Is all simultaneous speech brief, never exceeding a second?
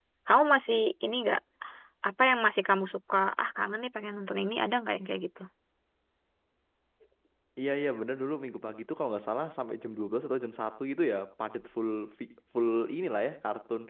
Yes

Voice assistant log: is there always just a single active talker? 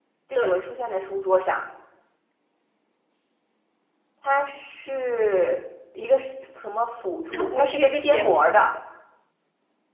No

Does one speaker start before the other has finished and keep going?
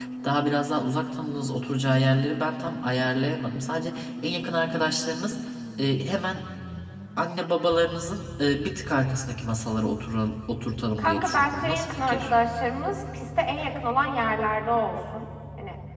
Yes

